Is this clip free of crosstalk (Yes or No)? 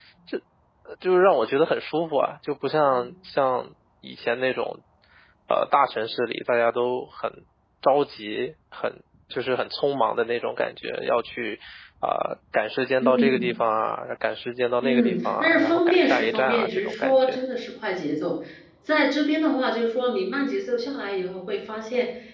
No